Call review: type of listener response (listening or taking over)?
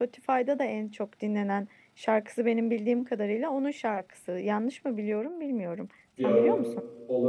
taking over